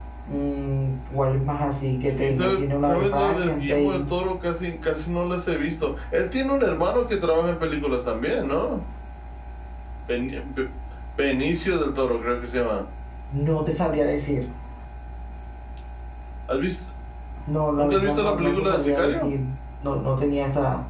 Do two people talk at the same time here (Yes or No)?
Yes